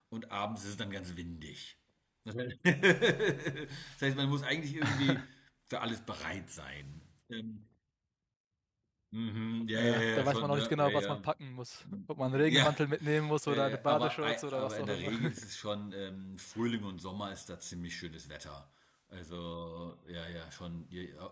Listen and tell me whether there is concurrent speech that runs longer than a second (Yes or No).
Yes